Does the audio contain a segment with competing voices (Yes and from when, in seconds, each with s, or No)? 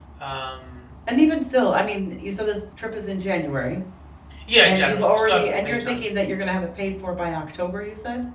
Yes, from 4.6 s